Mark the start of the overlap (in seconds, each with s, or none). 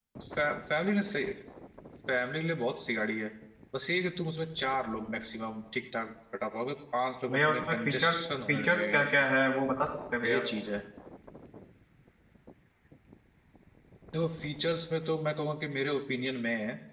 7.3 s